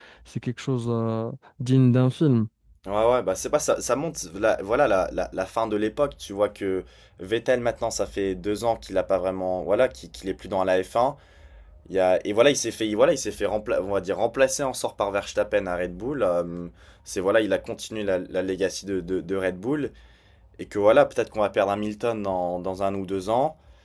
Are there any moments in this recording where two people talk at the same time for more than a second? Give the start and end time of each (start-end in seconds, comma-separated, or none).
none